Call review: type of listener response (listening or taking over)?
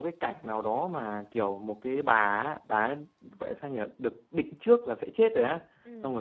listening